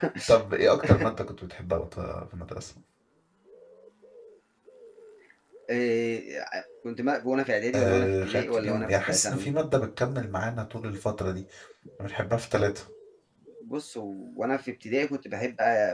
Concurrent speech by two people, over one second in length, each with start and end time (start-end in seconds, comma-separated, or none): 7.7-9.5